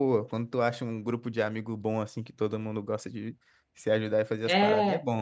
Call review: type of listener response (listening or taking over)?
taking over